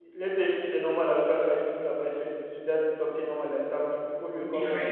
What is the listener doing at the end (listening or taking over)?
listening